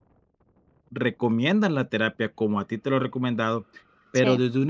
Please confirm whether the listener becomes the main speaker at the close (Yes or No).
No